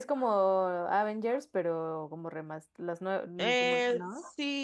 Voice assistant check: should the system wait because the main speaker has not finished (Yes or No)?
No